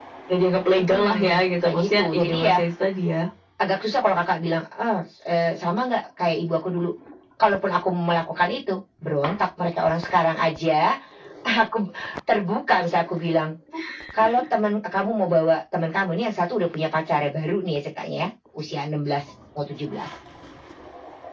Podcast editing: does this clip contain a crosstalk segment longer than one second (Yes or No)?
Yes